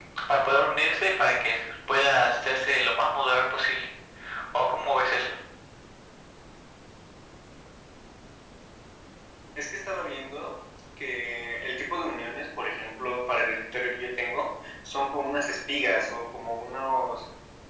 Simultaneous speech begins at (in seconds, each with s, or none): none